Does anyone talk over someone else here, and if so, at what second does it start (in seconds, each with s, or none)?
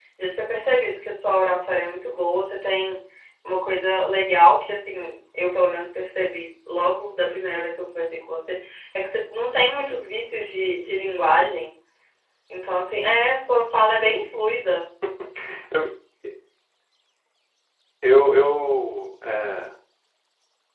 none